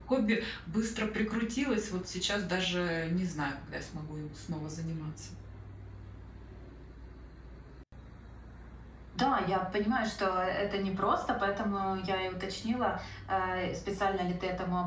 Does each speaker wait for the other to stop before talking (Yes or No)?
Yes